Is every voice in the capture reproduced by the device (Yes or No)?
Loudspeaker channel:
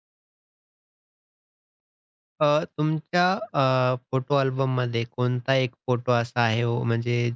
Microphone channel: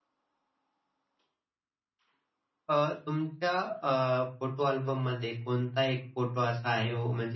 Yes